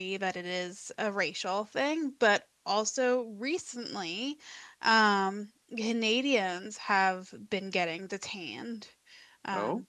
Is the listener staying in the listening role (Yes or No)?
Yes